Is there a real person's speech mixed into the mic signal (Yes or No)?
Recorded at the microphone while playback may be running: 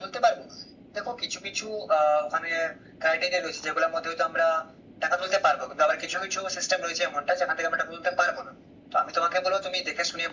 No